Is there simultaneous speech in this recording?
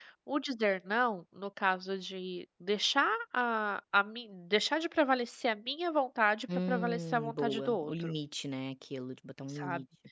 Yes, from 6.7 s

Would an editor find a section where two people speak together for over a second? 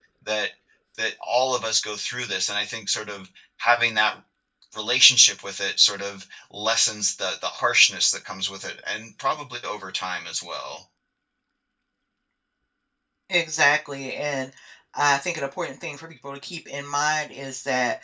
No

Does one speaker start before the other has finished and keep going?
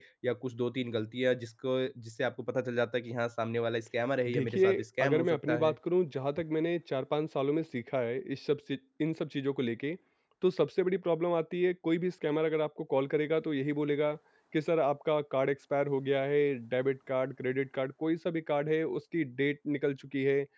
Yes, from 4.3 s

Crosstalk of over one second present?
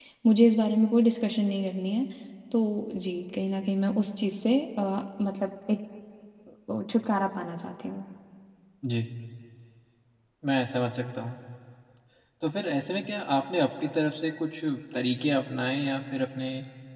No

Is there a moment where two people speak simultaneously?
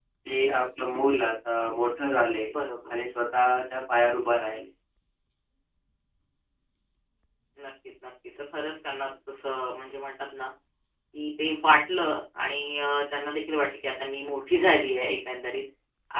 No

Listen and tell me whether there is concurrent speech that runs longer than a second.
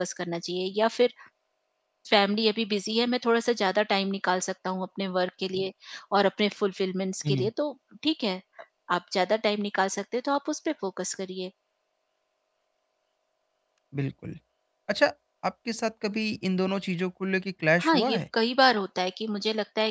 No

